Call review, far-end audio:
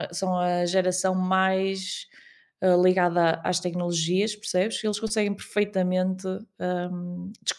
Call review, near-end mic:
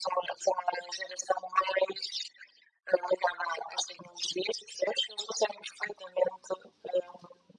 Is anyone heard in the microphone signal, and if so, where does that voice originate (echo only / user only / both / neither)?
echo only